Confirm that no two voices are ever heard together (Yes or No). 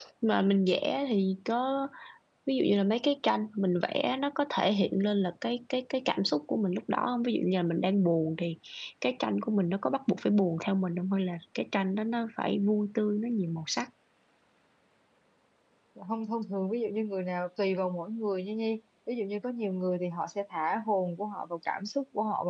Yes